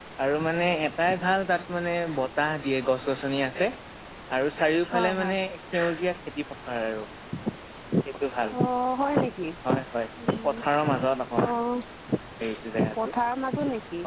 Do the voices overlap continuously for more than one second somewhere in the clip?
No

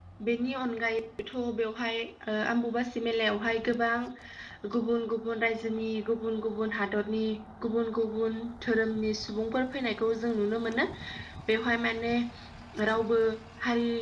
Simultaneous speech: No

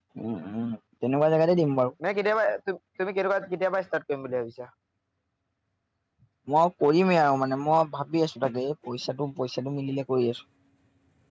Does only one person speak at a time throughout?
Yes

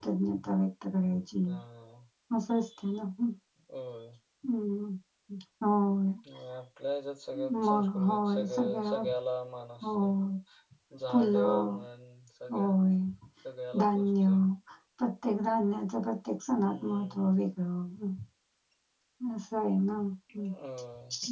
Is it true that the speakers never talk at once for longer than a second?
No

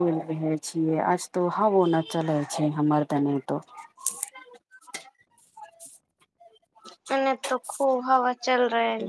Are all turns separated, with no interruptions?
Yes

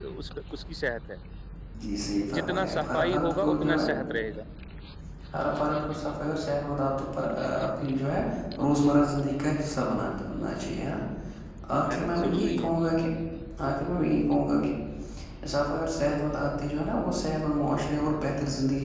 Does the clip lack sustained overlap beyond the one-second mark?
No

